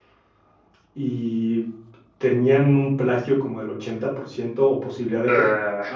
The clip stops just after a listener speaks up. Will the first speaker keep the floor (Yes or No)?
Yes